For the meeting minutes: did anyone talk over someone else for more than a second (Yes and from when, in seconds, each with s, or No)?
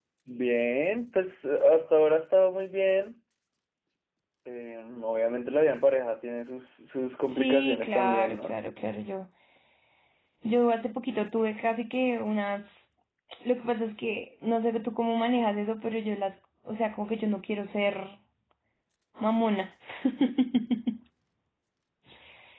Yes, from 7.3 s